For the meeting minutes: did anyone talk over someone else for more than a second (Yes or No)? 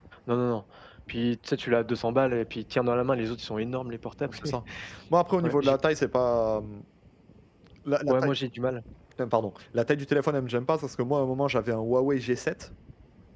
No